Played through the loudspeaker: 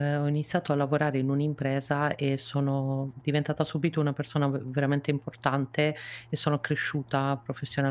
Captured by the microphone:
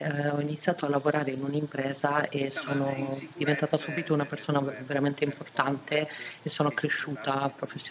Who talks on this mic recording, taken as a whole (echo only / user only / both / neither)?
both